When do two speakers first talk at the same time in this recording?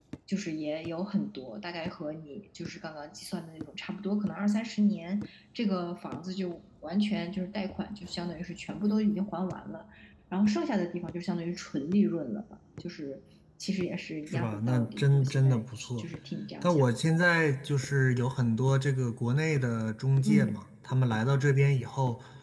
14.3 s

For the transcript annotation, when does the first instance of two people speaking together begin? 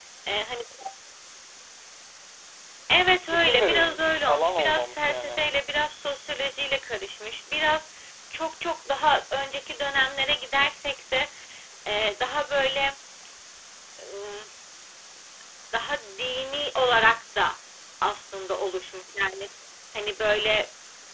3.3 s

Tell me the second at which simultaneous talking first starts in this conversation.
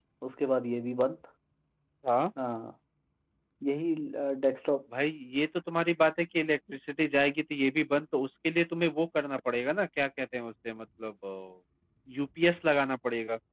none

